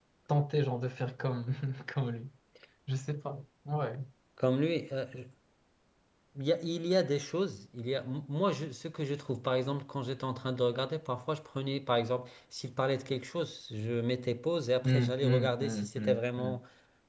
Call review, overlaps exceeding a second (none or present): present